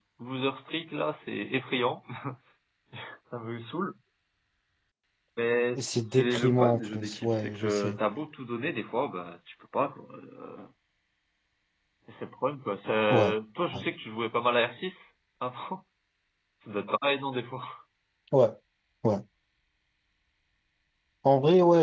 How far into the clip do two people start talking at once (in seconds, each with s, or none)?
5.7 s